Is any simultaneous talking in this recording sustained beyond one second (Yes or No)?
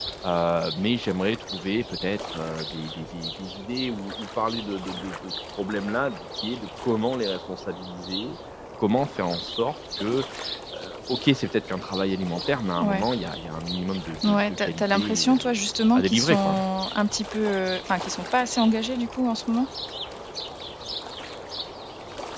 Yes